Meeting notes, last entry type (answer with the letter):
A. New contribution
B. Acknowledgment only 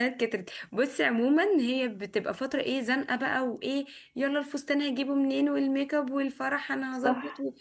B